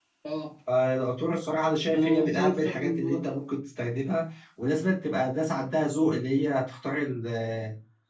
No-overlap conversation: No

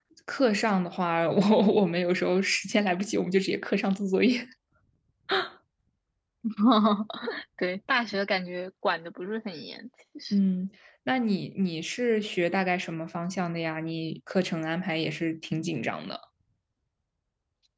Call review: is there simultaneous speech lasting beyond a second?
No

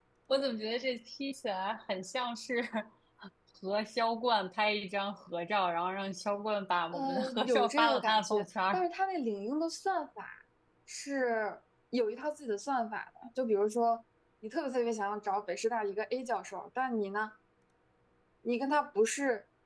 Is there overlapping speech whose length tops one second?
Yes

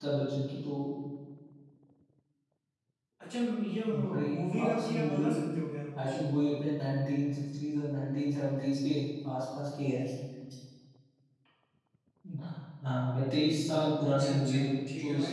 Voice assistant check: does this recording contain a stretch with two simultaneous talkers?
Yes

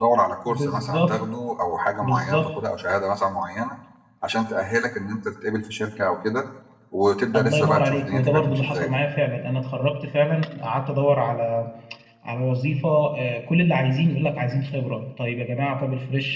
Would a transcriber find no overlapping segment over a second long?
No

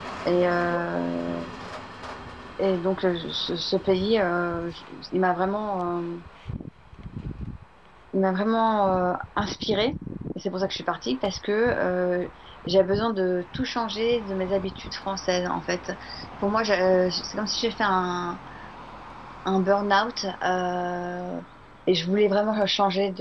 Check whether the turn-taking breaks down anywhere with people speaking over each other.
No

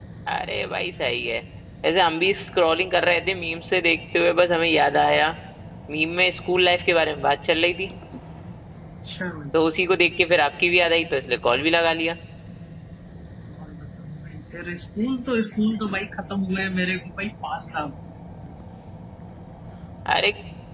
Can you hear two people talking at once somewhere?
No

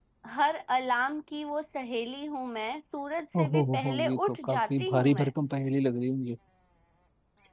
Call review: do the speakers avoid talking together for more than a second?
No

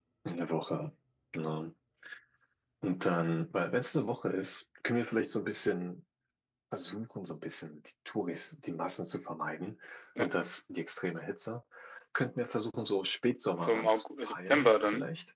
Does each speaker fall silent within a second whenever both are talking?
No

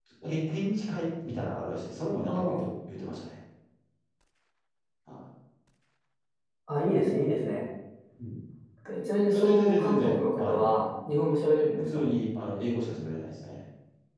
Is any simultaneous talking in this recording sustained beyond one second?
Yes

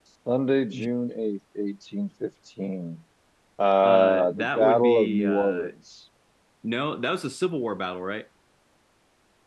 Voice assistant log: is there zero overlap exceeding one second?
No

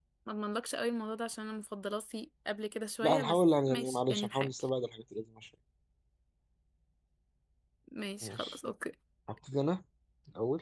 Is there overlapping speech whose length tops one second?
Yes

